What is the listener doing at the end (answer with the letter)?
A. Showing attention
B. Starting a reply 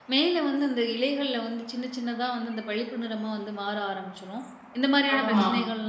A